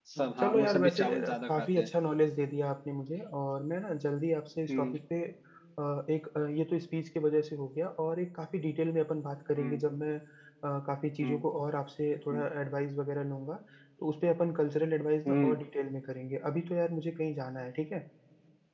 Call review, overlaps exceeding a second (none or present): present